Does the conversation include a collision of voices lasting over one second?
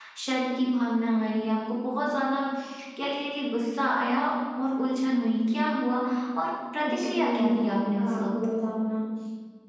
Yes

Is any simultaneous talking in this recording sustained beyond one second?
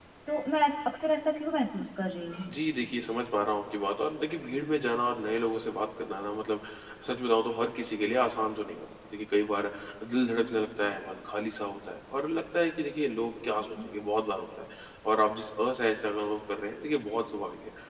No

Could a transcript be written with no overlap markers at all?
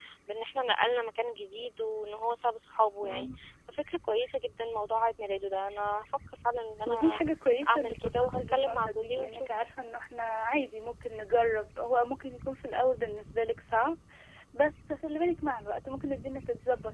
No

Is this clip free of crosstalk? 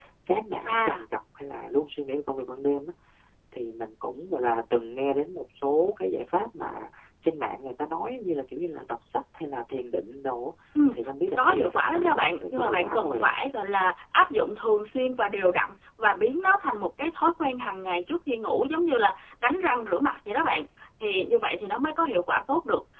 No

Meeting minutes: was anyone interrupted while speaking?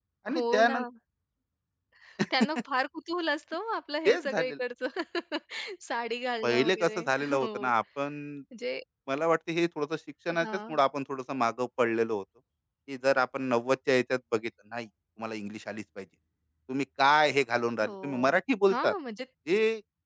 Yes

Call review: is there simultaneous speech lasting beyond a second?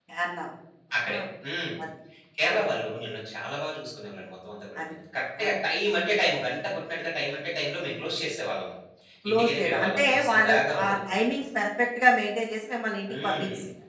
Yes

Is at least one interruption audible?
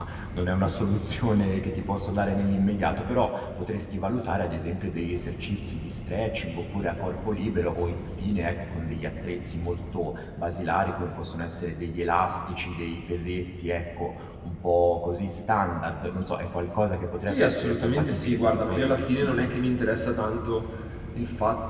Yes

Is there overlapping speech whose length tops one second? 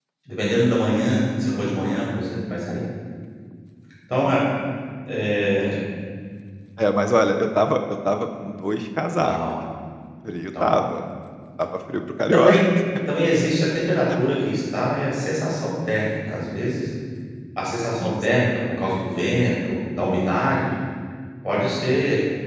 No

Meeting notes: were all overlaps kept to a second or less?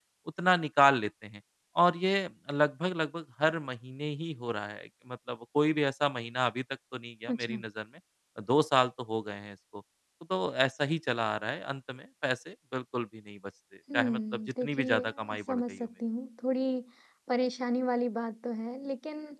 No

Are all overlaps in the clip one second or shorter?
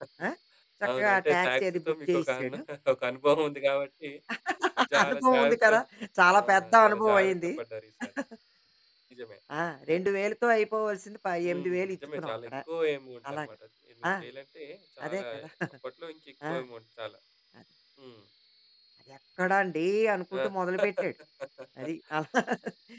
No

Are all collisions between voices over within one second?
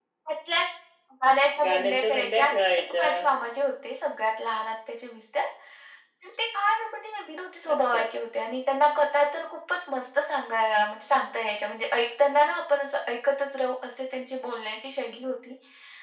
No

